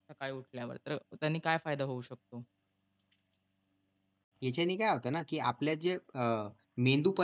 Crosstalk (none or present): none